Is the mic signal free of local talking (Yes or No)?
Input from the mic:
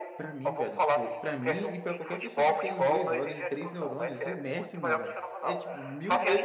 No